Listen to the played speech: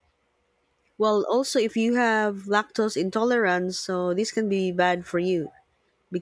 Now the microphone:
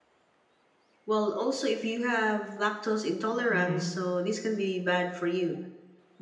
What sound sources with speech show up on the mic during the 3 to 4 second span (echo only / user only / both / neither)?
both